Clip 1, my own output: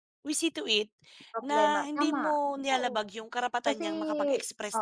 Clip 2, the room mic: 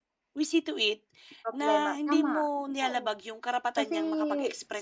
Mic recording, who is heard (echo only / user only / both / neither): echo only